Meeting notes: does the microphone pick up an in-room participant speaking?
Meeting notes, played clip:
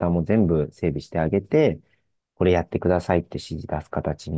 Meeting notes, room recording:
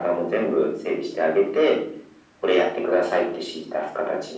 No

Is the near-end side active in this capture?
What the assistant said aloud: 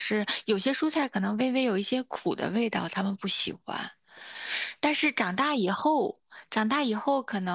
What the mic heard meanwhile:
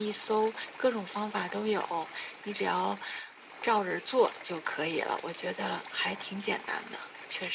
Yes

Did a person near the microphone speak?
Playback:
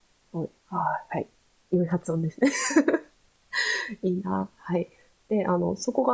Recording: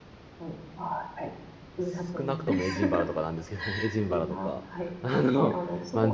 Yes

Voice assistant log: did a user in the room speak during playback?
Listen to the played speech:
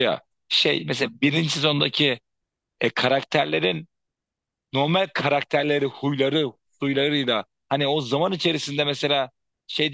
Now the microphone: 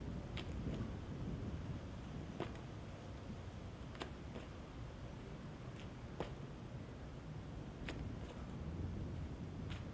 No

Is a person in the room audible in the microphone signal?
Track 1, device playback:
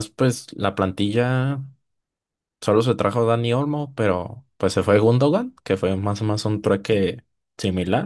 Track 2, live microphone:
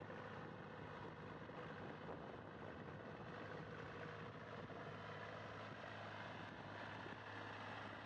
No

